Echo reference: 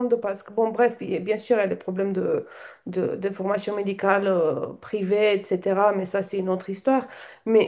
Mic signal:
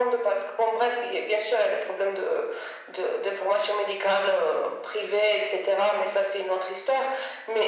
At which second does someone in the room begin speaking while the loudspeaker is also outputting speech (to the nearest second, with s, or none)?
none